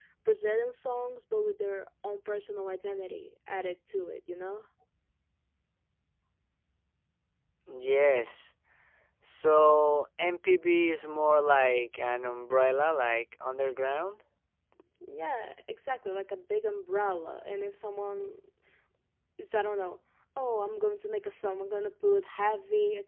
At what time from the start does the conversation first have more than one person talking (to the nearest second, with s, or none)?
none